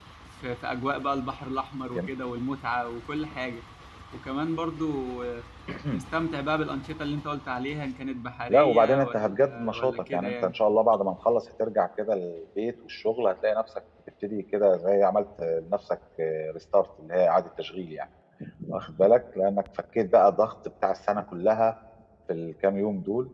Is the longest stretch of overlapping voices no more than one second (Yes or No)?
No